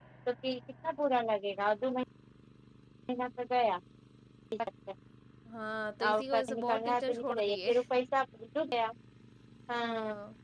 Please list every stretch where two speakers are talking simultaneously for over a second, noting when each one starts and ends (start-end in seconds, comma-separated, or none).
6.0-7.7